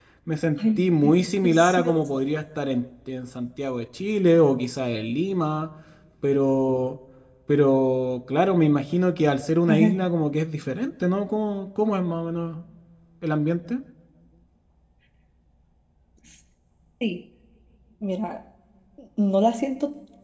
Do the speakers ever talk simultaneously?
Yes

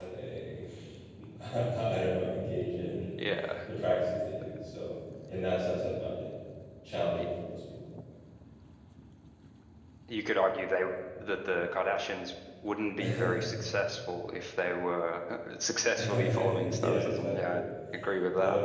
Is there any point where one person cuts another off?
Yes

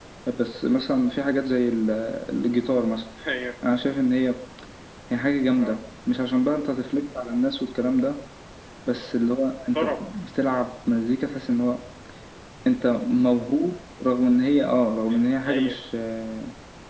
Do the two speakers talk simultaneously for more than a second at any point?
No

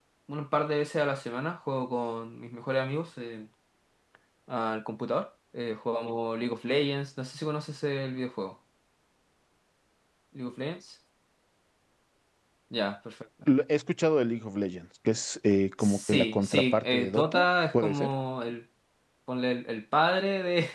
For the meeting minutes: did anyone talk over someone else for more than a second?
Yes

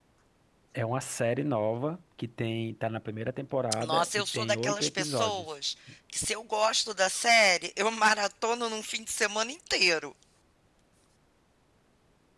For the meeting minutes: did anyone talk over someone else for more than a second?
Yes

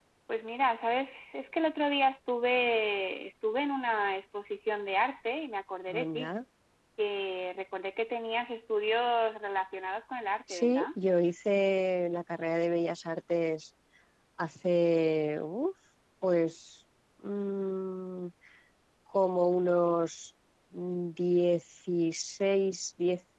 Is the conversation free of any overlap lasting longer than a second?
Yes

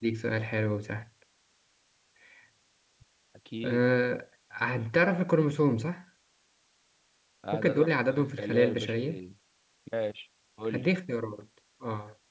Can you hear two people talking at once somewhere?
Yes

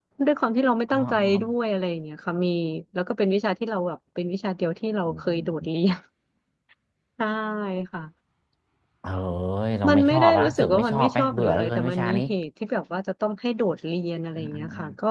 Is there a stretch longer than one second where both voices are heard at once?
Yes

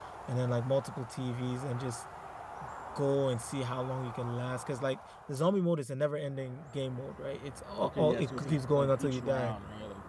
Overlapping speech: Yes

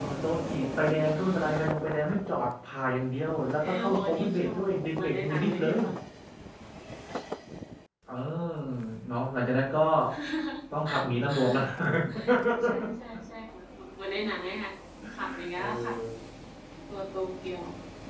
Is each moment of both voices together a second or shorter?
No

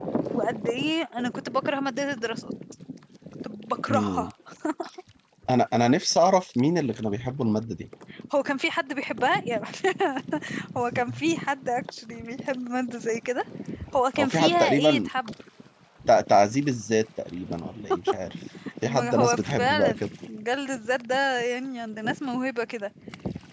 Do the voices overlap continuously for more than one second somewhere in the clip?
Yes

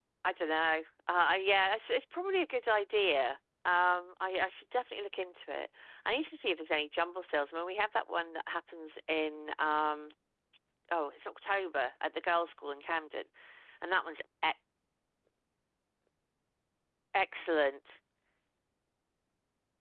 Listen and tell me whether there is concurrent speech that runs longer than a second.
No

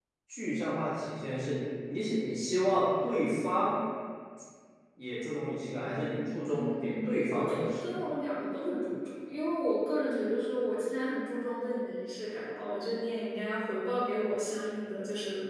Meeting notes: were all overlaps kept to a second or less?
No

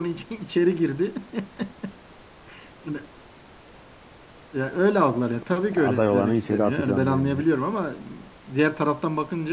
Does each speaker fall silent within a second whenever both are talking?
No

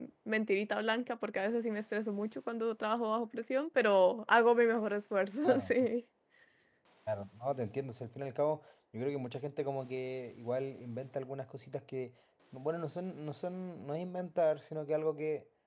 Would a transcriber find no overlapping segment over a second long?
Yes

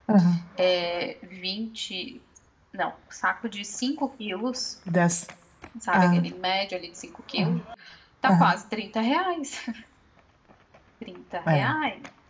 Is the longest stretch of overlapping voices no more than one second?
Yes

